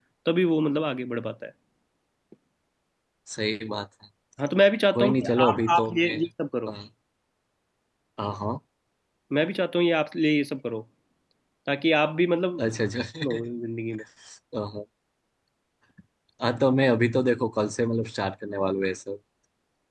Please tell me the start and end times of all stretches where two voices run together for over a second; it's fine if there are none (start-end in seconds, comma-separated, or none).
4.9-6.2